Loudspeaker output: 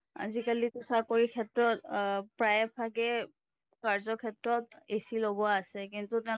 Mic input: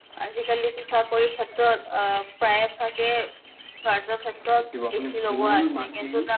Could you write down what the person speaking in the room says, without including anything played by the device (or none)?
দেখিব আপুনি ধূল, মাটি,